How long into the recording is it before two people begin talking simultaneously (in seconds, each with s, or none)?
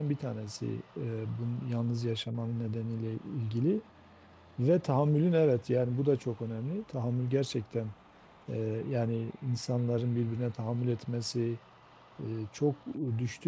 none